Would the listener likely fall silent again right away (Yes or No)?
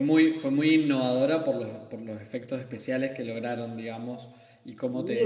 No